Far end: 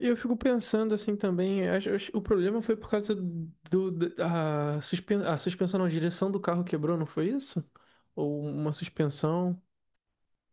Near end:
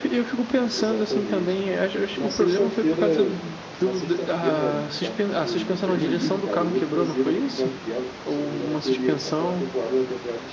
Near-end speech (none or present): present